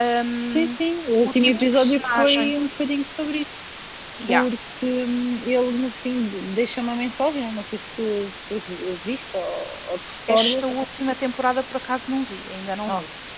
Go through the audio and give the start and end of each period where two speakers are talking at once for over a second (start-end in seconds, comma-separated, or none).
1.2-2.5